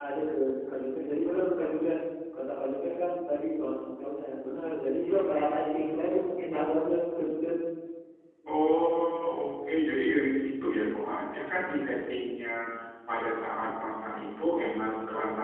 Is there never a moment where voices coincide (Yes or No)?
Yes